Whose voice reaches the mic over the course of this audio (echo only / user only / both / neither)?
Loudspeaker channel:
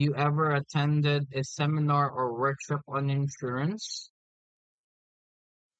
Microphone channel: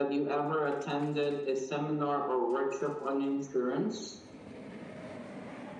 echo only